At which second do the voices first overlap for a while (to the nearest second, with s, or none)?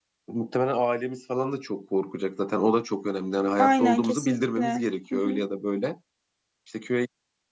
4 s